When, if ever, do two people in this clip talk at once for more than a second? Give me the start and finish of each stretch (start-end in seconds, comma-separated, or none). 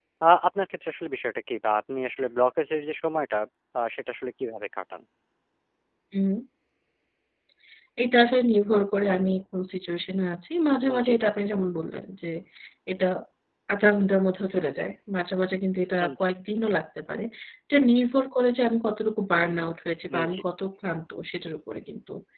none